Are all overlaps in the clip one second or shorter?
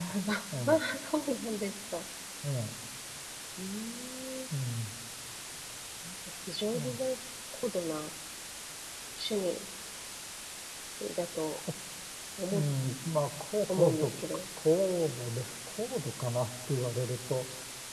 Yes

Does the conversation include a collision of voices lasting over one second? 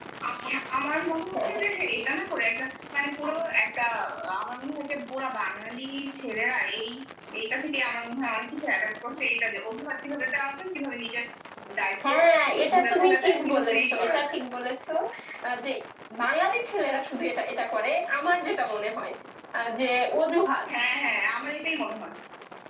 Yes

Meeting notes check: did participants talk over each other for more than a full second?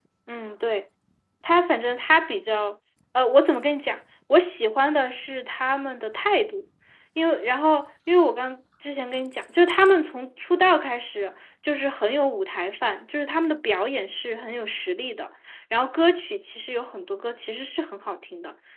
No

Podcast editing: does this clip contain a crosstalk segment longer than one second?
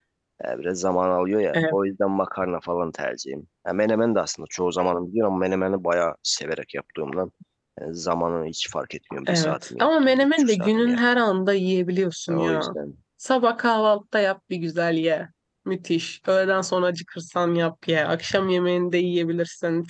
Yes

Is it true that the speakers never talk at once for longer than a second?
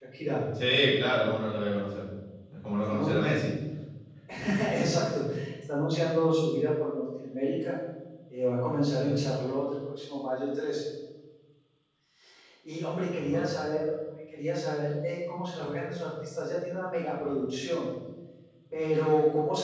Yes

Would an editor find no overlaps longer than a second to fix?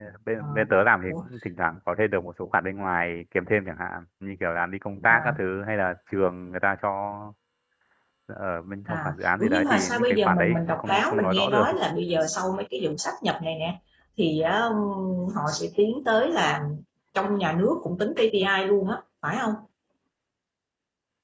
No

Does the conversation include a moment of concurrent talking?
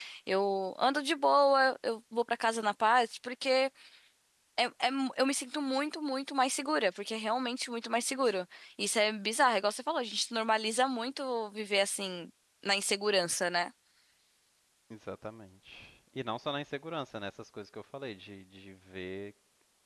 No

